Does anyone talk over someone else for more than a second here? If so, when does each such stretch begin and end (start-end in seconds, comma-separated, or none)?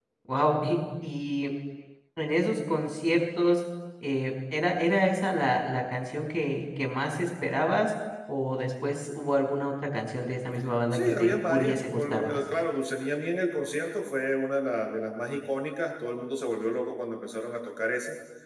10.9-12.4